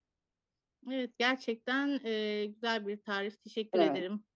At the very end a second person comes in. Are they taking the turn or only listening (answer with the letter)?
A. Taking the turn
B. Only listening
A